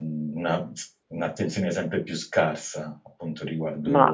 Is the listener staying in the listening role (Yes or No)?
No